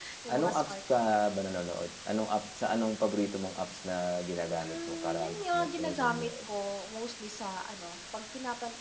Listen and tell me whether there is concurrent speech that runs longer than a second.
Yes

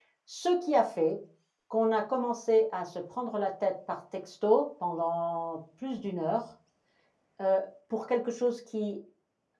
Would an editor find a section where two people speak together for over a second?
No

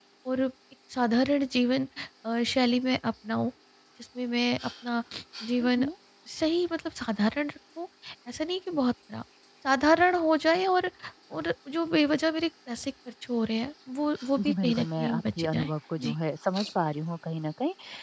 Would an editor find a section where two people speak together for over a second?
Yes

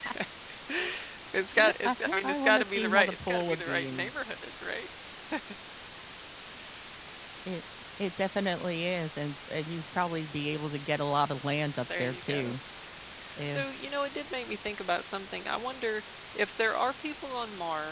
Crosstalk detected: Yes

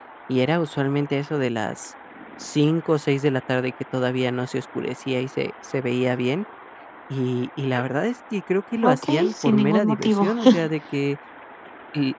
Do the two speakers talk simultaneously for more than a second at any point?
Yes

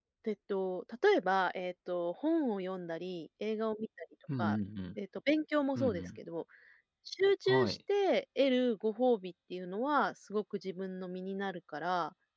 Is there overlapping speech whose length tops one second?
No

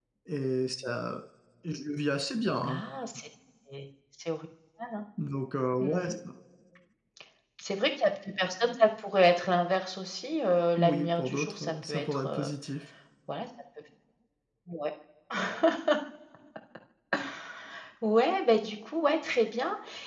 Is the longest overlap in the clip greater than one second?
Yes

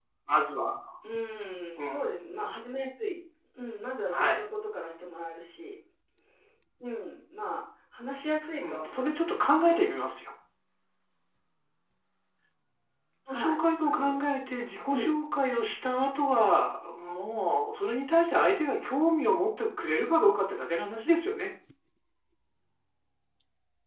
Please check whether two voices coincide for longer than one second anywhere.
Yes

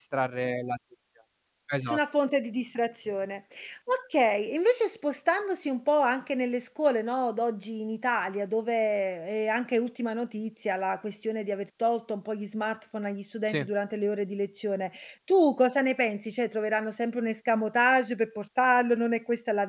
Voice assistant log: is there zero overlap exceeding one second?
Yes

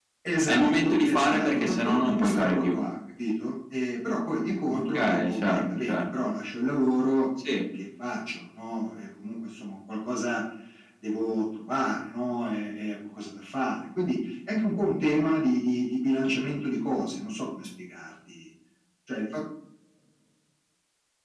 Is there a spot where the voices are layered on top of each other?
Yes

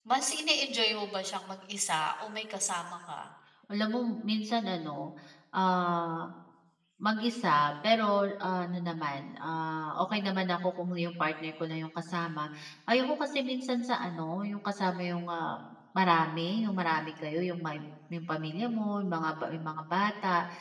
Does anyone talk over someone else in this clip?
No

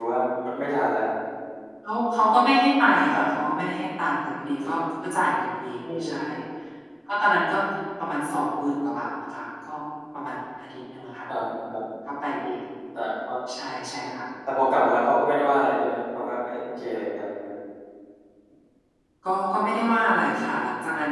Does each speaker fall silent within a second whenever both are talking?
Yes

